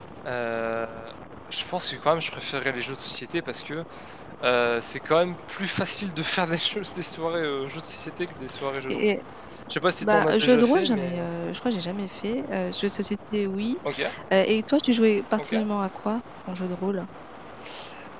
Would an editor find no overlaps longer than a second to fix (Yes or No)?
No